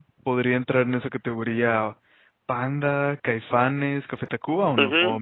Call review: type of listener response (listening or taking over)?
taking over